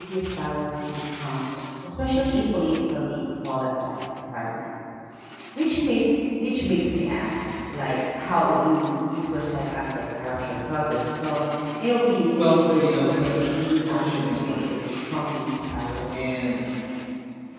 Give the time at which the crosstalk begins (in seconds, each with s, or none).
12.3 s